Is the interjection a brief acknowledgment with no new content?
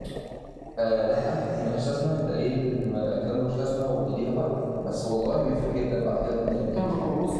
No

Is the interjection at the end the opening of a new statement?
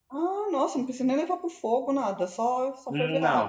Yes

